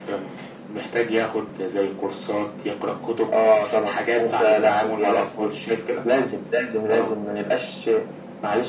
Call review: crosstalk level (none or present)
present